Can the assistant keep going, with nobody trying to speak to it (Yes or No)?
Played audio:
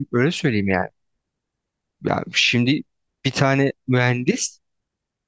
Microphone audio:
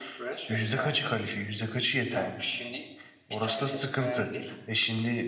No